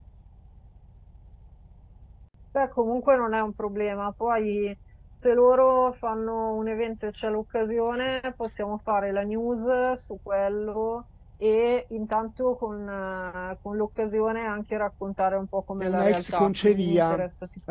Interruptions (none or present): present